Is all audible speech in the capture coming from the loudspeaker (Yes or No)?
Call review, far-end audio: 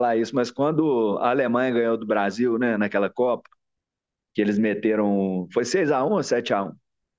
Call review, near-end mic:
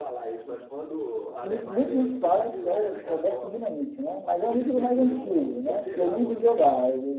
No